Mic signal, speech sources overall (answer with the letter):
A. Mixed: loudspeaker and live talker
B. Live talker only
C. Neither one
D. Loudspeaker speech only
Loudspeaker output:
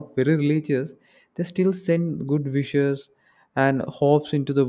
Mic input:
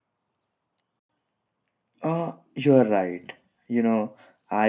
B